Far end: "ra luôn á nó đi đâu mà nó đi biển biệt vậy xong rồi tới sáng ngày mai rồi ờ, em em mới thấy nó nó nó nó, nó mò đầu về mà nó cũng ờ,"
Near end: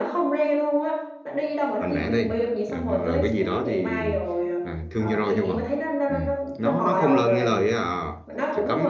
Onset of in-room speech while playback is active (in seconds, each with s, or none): 1.8 s